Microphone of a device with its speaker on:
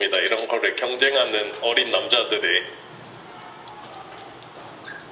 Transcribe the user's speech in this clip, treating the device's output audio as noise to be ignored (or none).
none